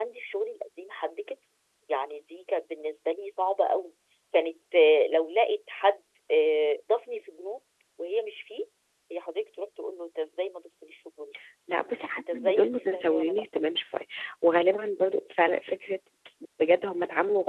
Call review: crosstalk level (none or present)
present